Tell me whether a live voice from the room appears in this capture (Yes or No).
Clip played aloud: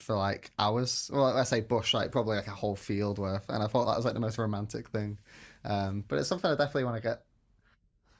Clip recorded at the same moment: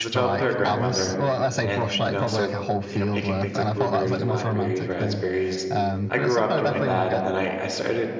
Yes